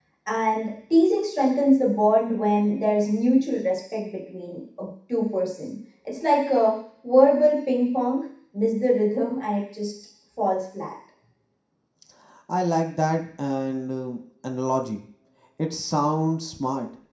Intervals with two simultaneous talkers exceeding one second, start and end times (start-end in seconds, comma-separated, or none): none